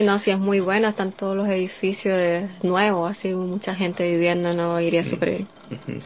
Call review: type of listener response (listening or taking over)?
taking over